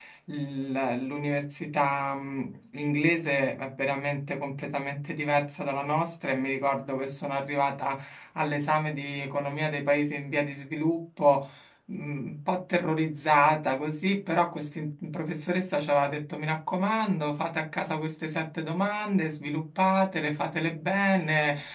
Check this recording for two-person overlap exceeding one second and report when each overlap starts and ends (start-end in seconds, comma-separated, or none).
none